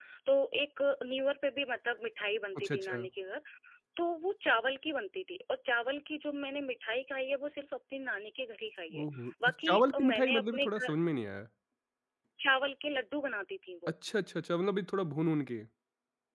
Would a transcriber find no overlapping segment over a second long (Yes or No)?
No